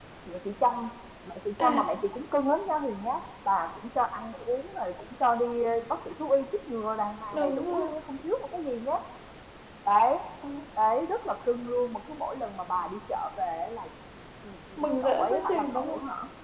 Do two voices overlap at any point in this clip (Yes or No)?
Yes